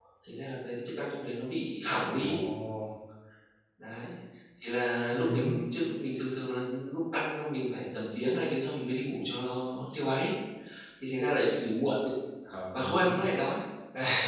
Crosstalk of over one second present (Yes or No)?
No